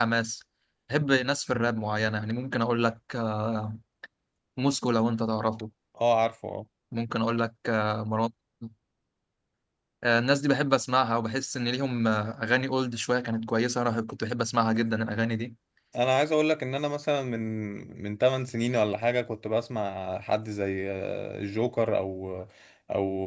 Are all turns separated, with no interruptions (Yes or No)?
Yes